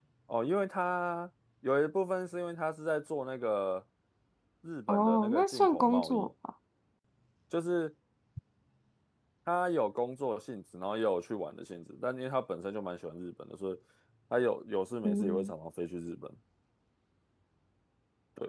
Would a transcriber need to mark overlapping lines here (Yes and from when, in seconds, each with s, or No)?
Yes, from 4.9 s